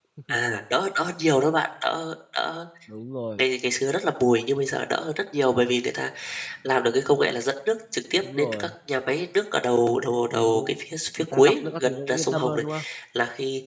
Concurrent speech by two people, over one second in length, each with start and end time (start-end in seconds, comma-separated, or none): 11.3-12.6